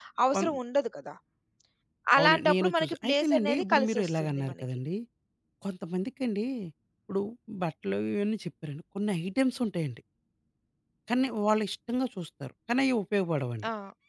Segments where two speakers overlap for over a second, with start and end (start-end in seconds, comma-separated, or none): 2.2-4.5